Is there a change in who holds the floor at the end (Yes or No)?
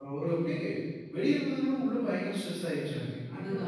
Yes